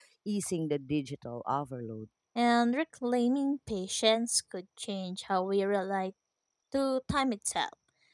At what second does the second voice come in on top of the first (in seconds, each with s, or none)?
none